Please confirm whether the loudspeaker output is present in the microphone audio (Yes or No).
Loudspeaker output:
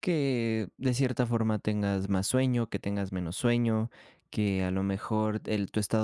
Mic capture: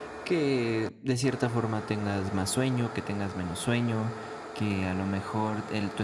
Yes